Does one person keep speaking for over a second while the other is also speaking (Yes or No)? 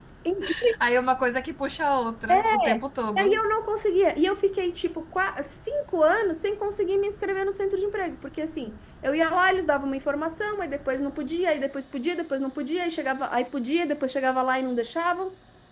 No